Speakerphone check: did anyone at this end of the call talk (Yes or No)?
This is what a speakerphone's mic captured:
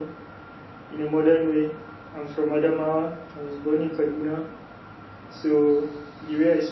No